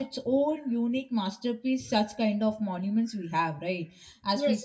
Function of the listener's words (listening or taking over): listening